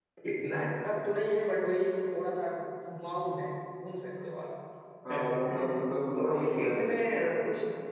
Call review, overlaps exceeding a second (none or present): present